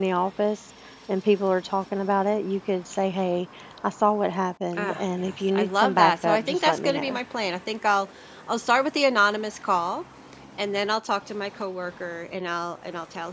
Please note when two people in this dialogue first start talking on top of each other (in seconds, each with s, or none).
4.7 s